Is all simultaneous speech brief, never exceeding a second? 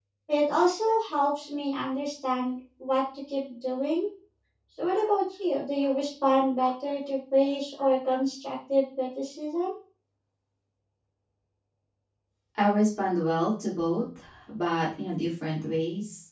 Yes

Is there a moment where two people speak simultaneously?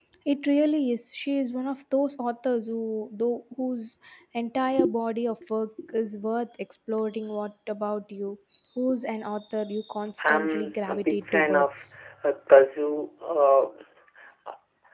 Yes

